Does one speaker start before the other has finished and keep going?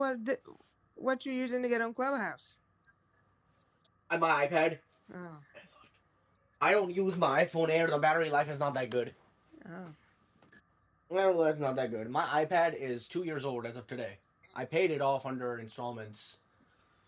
No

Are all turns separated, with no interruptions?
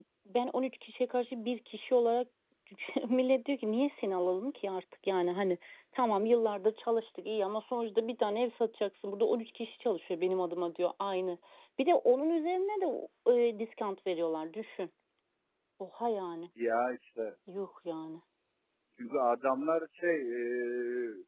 Yes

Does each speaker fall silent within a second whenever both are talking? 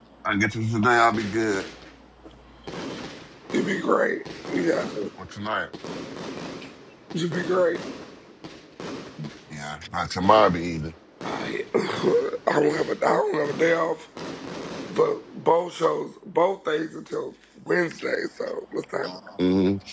Yes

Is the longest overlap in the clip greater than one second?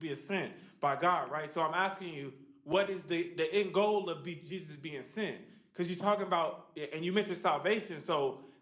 No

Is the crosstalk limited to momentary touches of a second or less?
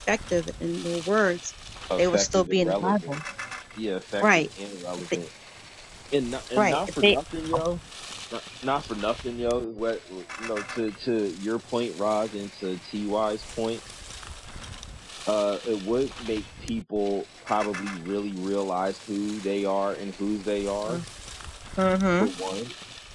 No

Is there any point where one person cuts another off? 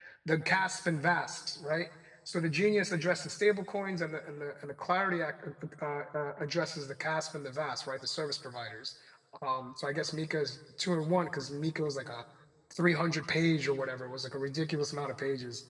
No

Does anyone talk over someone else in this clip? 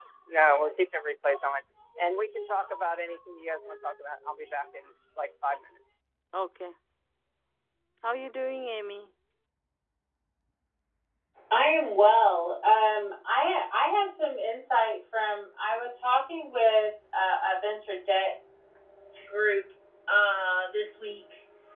No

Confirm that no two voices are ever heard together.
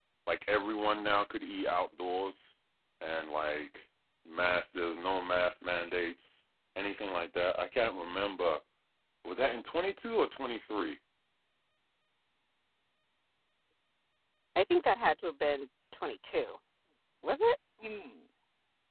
Yes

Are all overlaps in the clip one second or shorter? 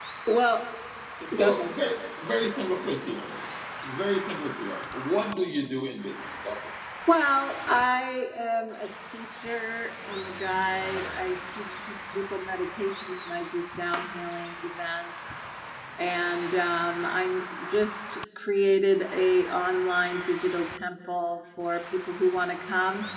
Yes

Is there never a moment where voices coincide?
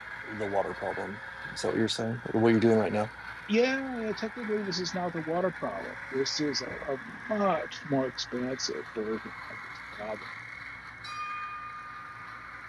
Yes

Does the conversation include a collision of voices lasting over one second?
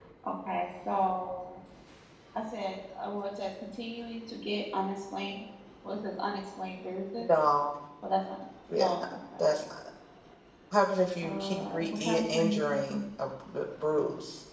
Yes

